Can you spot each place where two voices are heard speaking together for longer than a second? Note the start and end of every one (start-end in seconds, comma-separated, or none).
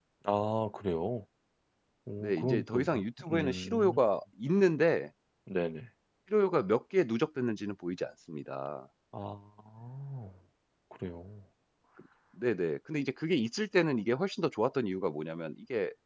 2.2-4.0